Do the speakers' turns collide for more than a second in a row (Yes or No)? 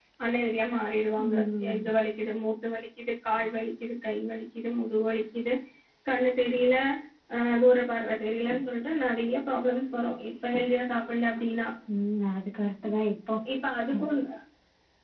No